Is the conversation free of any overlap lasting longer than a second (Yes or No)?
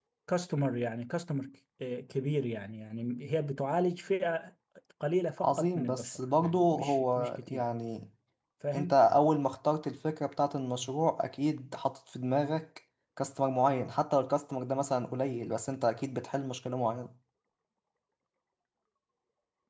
No